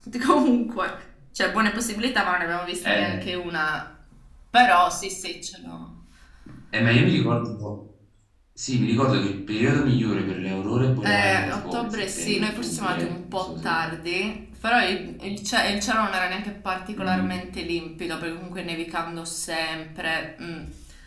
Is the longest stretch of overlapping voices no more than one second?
No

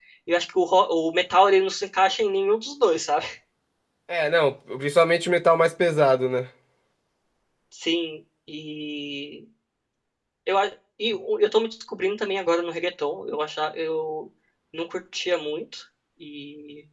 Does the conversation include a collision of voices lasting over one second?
No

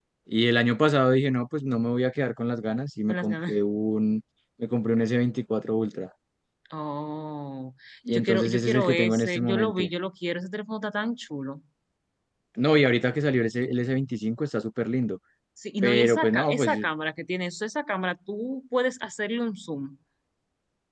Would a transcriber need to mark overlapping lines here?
Yes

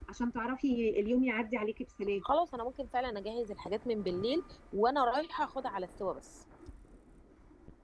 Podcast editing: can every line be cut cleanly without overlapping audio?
Yes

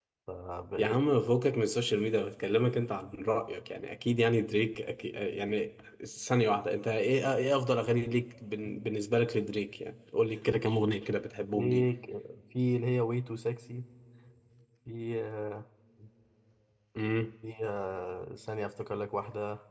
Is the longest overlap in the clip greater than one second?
No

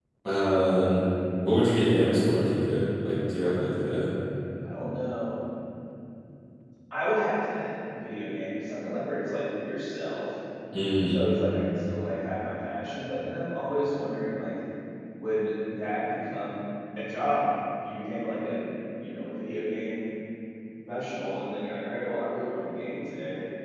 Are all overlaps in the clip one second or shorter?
Yes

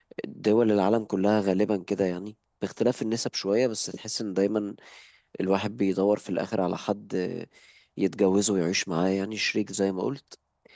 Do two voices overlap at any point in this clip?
No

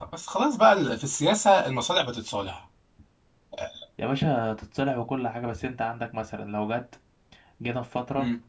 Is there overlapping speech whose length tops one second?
No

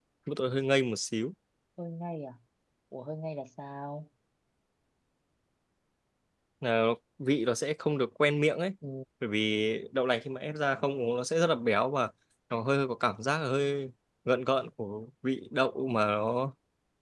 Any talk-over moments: No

